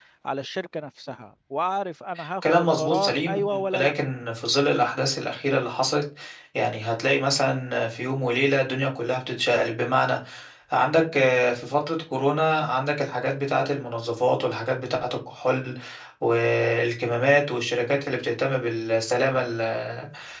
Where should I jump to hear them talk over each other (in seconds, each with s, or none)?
2.4 s